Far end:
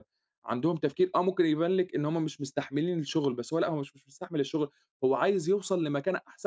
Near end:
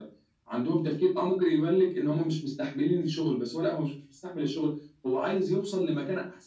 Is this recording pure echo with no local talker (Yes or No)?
Yes